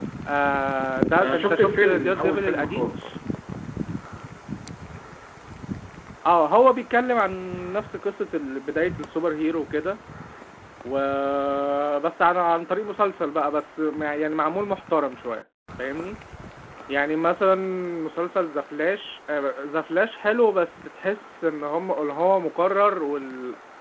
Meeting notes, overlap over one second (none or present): present